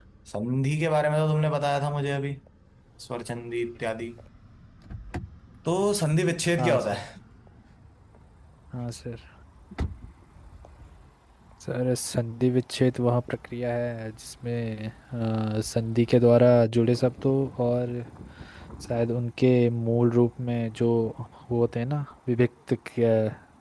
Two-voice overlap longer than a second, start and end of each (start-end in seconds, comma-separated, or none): none